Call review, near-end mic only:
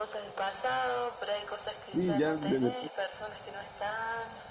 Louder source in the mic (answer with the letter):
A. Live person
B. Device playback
A